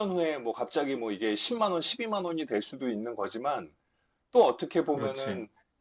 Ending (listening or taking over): listening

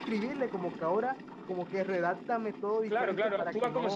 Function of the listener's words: taking over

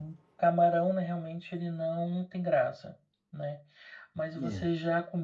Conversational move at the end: listening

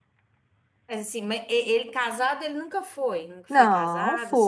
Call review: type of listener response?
taking over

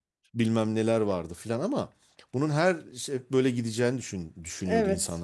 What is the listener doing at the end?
listening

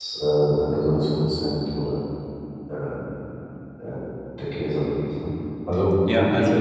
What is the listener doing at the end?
taking over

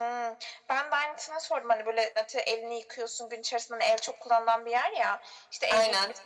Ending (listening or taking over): listening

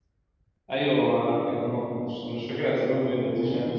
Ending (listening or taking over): listening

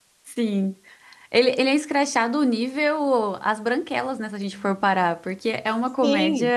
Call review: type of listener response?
taking over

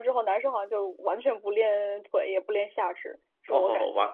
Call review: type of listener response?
taking over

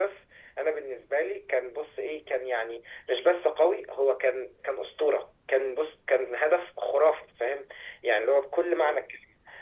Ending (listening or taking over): listening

